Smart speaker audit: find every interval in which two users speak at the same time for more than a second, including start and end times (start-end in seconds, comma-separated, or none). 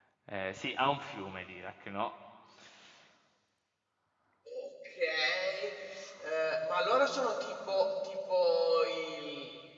none